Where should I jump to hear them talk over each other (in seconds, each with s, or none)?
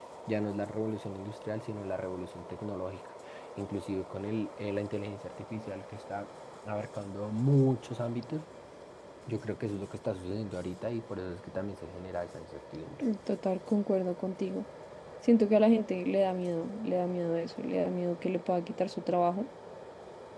none